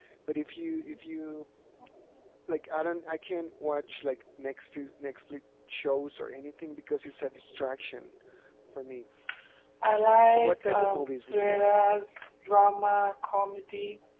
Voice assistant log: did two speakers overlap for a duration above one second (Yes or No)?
Yes